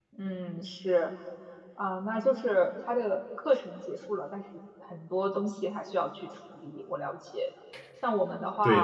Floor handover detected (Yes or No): No